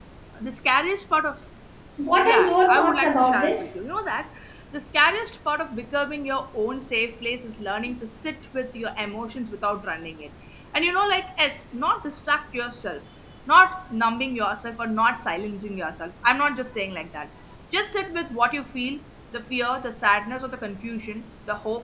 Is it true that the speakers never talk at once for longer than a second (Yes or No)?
No